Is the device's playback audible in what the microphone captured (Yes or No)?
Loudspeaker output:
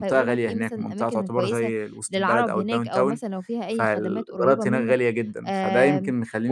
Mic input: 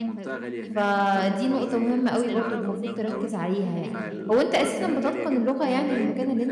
Yes